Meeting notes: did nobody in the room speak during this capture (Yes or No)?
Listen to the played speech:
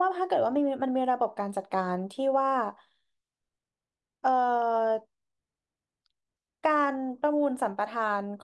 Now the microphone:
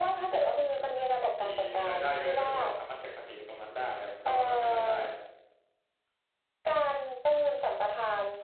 No